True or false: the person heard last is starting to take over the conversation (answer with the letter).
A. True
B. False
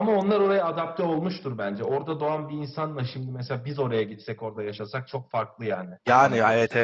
A